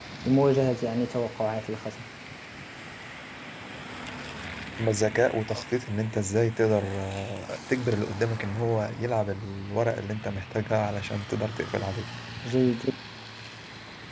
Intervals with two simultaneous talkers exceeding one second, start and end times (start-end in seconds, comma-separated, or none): none